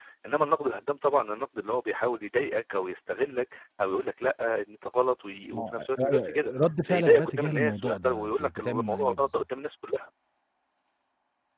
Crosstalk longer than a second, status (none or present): present